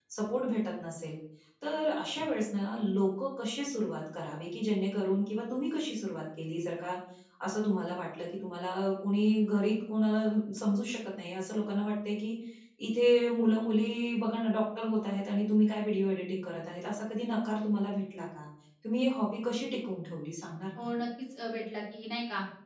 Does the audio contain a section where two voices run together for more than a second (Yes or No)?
No